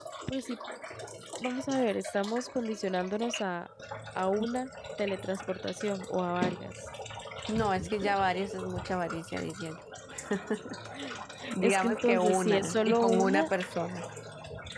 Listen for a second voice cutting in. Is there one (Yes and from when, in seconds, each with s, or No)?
Yes, from 11.6 s